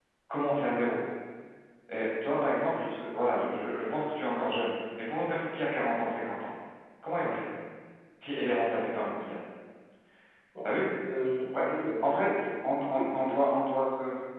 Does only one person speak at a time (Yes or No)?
No